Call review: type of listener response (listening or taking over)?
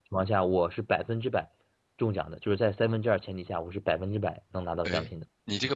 taking over